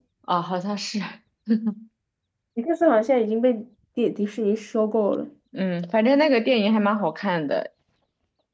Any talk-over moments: No

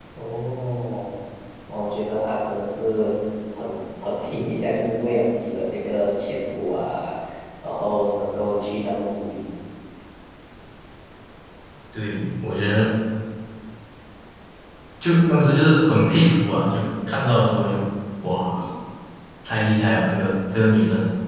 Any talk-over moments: No

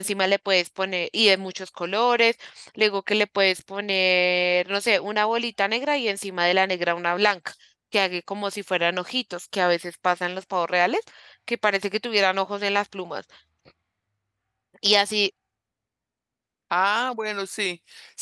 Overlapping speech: No

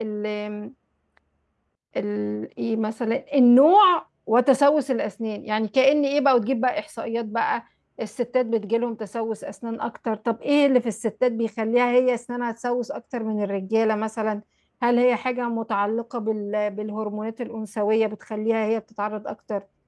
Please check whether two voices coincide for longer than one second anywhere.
No

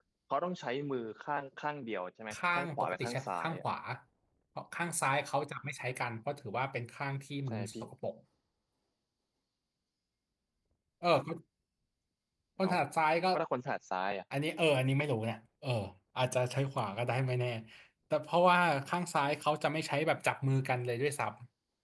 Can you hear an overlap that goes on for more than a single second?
Yes, from 2.3 s

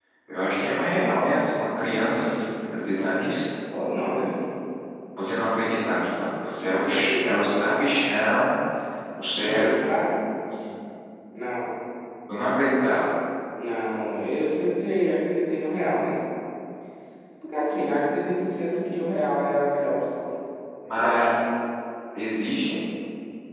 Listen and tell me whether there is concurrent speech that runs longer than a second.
No

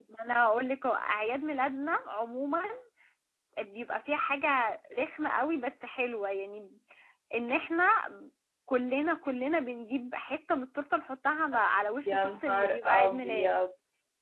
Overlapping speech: Yes, from 12.1 s

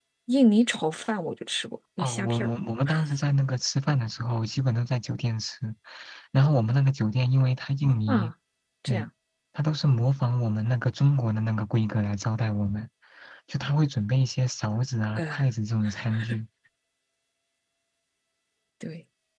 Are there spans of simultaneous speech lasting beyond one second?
No

